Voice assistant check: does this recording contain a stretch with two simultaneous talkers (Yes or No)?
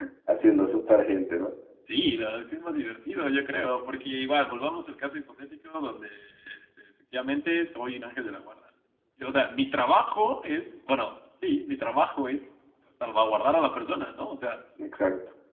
No